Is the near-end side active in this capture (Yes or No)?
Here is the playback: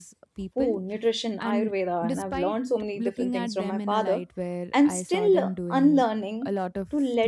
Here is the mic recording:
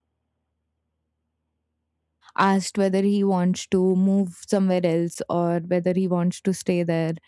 Yes